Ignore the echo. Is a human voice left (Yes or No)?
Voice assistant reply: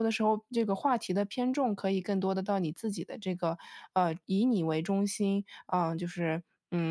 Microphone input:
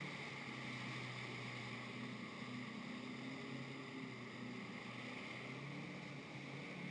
No